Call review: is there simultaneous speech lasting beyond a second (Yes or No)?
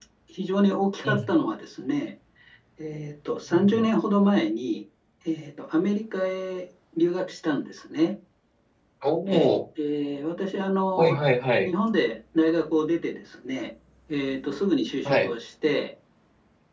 No